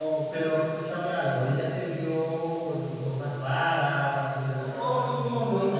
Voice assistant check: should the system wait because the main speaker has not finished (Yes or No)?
No